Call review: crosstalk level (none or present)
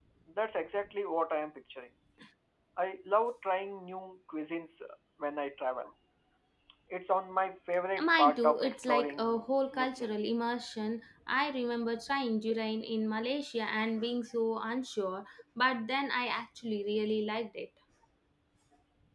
present